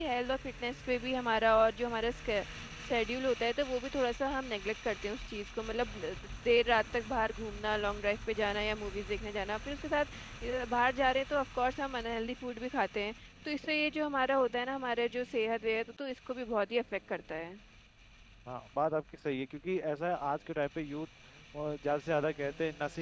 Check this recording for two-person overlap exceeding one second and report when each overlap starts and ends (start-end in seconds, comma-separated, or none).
none